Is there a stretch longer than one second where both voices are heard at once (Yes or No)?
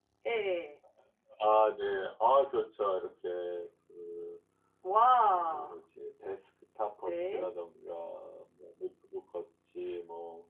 No